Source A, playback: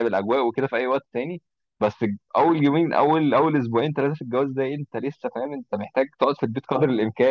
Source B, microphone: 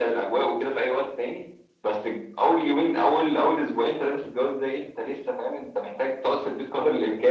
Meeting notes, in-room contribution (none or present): none